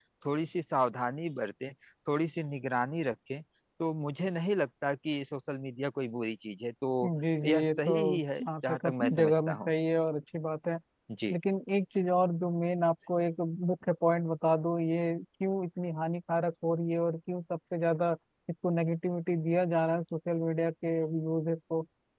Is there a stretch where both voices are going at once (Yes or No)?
Yes